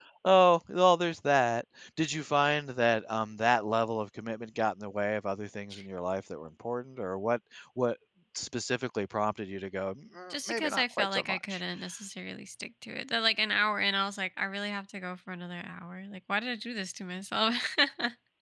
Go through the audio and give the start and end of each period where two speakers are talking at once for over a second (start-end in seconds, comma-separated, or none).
10.3-11.6